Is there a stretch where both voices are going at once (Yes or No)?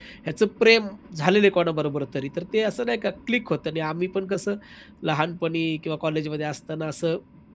No